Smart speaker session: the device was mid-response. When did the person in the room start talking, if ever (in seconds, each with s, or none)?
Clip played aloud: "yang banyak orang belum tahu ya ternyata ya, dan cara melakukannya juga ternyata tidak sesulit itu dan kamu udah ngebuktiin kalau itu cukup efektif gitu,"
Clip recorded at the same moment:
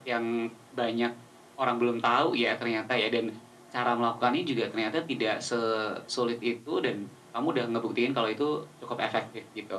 none